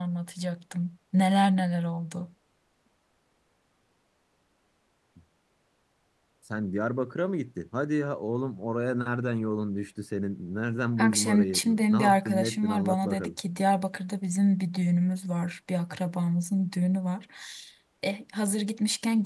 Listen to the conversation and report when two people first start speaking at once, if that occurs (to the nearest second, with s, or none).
11 s